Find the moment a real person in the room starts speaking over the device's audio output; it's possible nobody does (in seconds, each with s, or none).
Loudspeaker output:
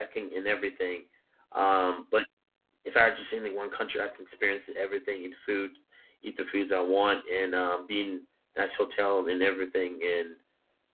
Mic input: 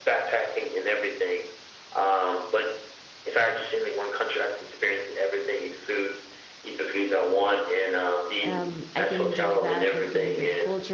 8.4 s